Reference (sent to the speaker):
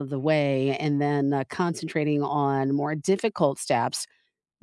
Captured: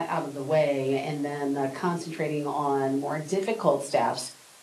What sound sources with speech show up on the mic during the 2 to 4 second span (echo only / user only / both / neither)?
echo only